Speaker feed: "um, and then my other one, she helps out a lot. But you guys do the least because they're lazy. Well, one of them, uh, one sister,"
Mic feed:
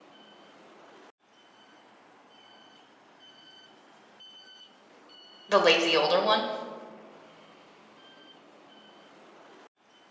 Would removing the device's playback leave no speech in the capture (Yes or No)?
No